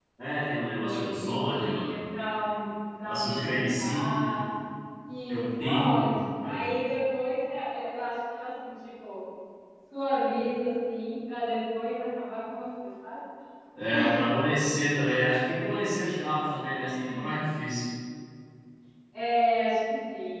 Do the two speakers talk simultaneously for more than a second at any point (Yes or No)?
Yes